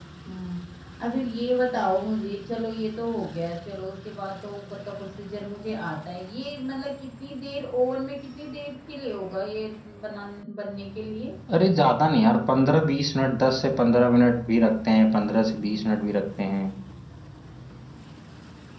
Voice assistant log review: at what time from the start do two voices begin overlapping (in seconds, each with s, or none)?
none